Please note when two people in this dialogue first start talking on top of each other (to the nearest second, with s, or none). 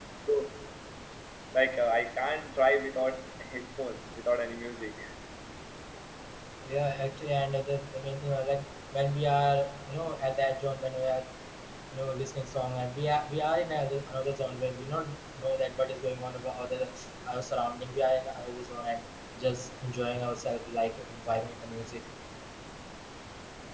none